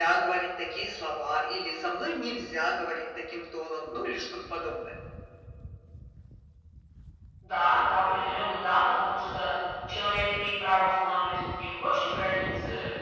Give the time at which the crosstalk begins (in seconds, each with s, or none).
none